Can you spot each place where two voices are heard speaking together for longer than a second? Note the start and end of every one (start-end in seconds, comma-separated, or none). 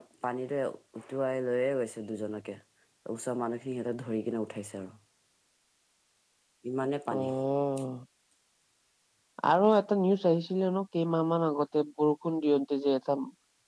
none